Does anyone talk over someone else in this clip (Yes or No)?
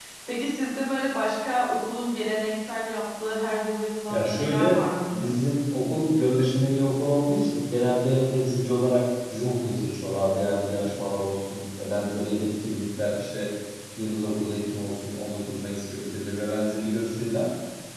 Yes